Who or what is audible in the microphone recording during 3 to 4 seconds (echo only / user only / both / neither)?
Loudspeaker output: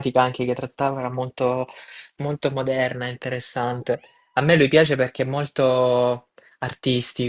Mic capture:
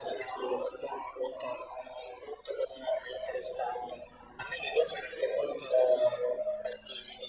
echo only